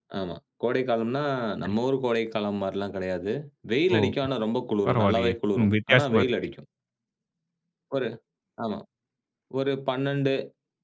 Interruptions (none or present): present